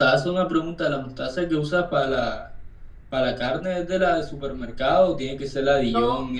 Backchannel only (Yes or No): Yes